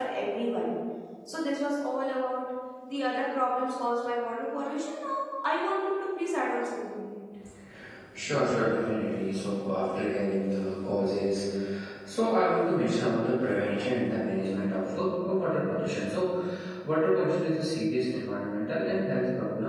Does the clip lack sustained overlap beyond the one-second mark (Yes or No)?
Yes